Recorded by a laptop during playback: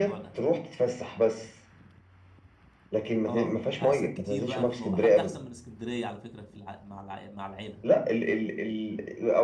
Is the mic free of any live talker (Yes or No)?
No